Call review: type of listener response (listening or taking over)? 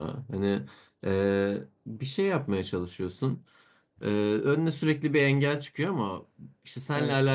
listening